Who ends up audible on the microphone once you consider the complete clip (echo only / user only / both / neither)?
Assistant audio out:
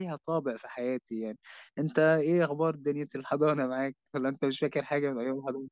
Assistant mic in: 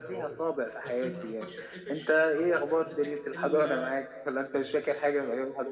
both